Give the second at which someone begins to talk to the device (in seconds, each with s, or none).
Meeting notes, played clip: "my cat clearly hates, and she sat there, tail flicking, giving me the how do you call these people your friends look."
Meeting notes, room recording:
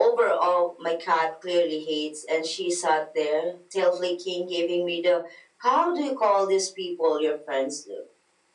none